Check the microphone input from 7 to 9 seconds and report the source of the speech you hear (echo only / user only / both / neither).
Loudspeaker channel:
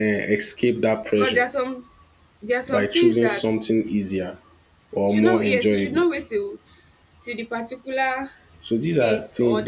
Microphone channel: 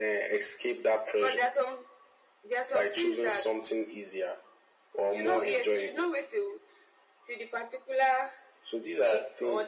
echo only